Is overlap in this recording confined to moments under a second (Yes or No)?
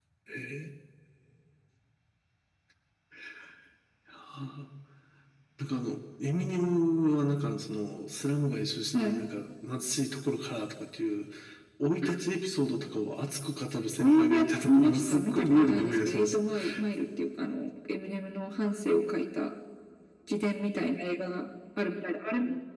No